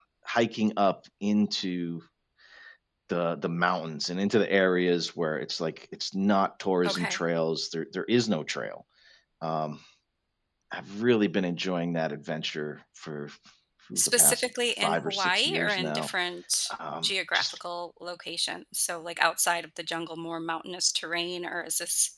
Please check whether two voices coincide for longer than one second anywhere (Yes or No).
Yes